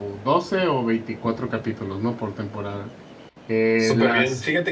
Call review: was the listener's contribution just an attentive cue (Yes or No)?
No